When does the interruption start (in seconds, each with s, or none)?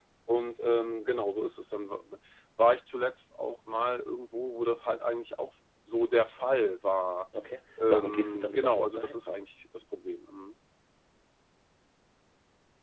7.9 s